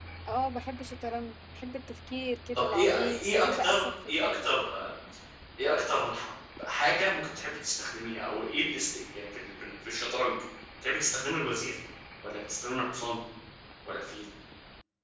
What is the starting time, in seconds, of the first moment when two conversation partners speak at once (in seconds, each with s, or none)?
2.5 s